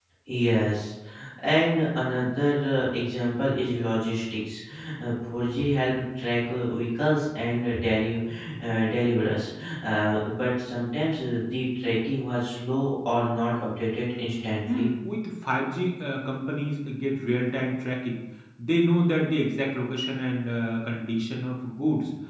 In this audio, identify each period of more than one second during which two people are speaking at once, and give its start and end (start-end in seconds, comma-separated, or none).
none